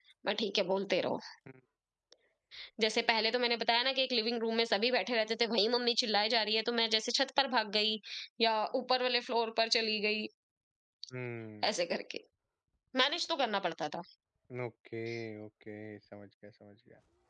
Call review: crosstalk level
none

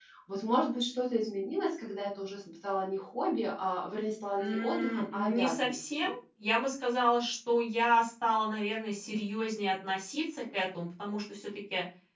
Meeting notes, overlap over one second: present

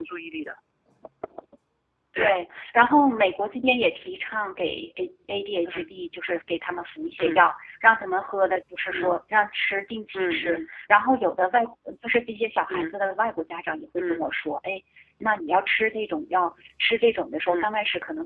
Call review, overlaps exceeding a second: none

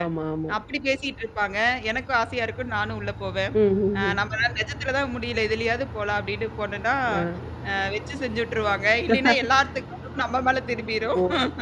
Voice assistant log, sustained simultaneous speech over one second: none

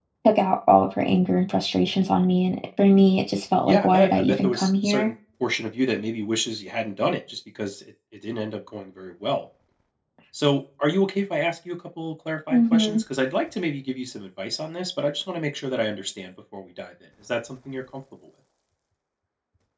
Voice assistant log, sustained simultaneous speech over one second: present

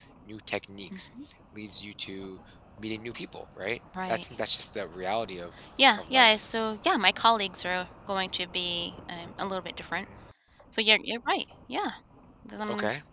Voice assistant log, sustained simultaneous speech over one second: none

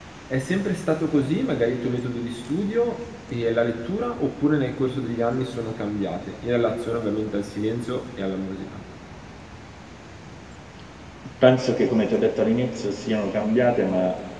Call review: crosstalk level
none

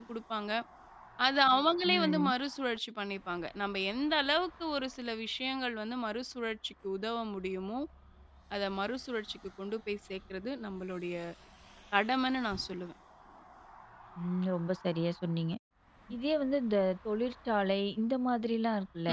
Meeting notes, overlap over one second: none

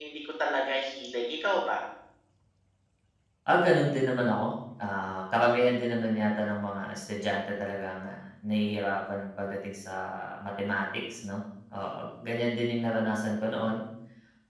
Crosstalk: none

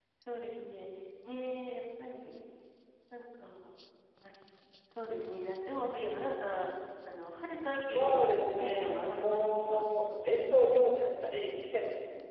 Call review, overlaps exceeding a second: present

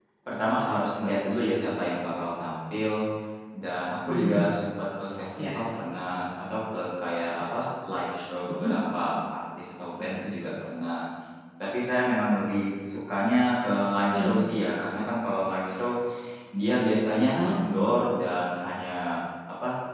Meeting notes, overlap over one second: none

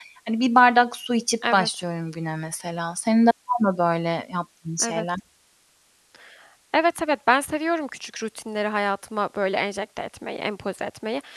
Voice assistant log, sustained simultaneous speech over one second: none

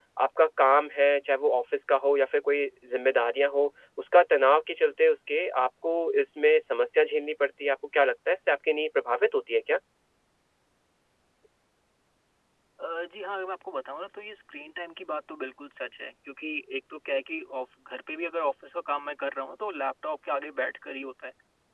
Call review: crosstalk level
none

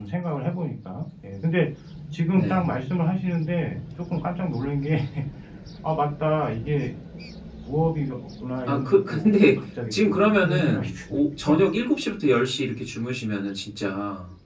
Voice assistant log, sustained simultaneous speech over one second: present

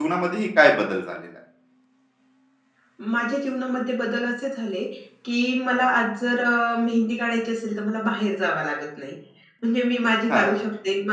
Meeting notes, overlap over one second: none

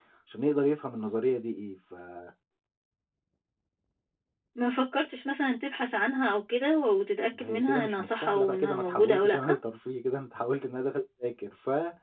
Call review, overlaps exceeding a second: present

